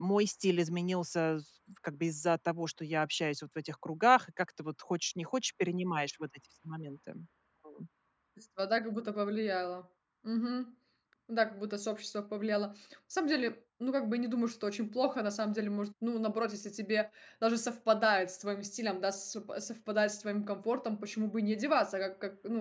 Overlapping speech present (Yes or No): No